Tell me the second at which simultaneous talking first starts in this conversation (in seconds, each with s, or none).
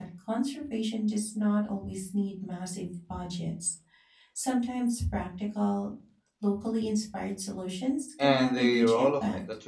8.2 s